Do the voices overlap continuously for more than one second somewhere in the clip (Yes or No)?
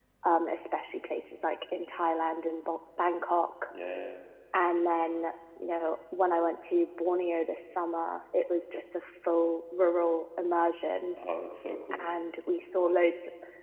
No